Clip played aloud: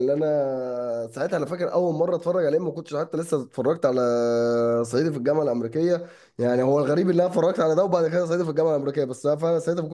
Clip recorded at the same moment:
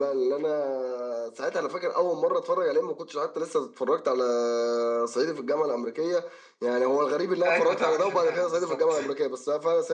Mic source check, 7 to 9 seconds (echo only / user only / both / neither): both